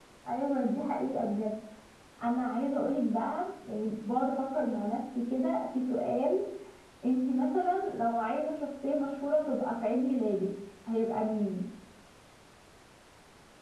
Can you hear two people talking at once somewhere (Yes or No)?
No